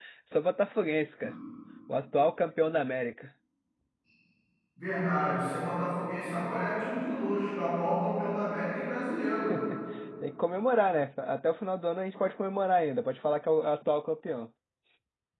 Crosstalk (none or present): none